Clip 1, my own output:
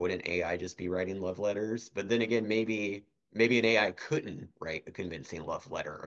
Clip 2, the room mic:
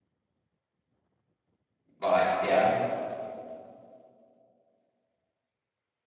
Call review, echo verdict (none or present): none